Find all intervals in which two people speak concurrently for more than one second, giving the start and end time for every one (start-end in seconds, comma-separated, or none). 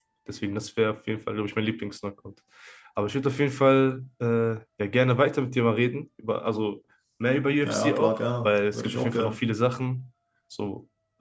7.6-9.4